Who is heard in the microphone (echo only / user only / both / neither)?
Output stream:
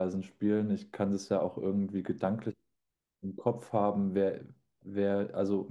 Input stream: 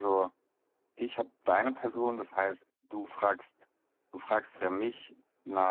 user only